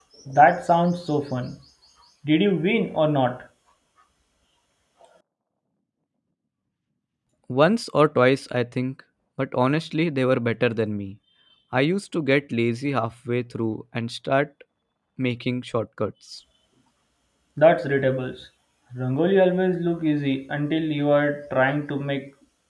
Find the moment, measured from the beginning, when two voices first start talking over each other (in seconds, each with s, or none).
none